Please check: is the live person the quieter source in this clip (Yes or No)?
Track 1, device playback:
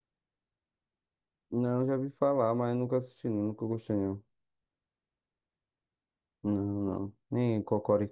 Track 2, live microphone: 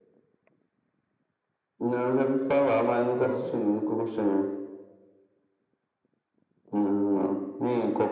Yes